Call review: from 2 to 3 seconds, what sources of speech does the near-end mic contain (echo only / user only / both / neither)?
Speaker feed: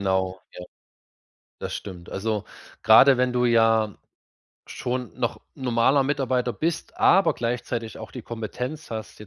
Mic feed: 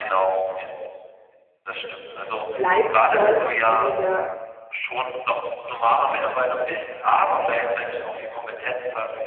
both